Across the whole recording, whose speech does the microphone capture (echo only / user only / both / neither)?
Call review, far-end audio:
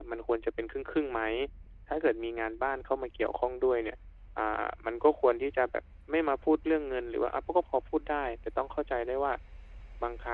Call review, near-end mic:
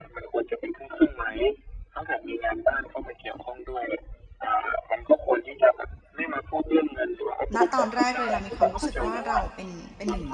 both